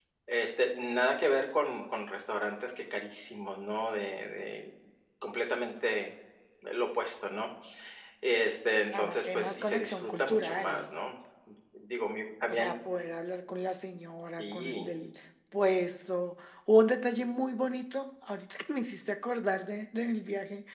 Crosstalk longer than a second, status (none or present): present